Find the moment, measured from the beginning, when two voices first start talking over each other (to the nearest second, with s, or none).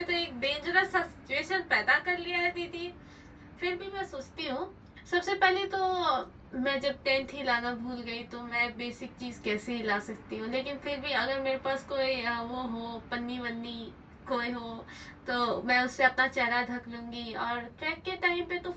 none